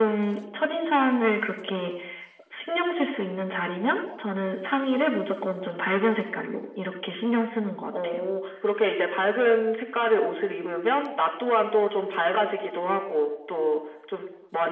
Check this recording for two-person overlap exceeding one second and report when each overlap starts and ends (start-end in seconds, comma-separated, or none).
none